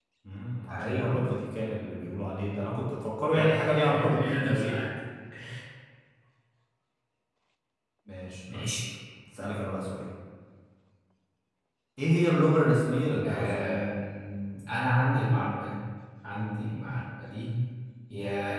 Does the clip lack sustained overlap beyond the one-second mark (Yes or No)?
No